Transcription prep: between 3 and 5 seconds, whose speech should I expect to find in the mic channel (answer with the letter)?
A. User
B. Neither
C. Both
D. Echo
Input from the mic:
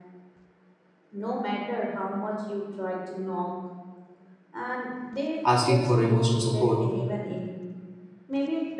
D